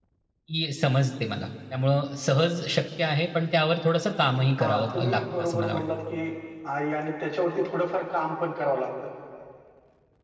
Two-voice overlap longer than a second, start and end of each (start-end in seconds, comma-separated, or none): 4.6-5.8